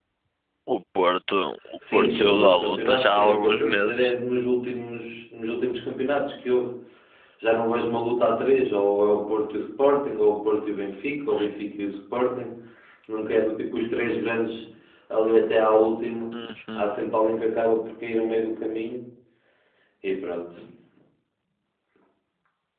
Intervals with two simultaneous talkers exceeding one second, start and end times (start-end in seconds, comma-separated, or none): 1.9-4.1